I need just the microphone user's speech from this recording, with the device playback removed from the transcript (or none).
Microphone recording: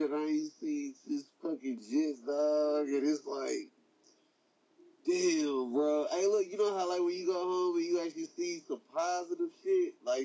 none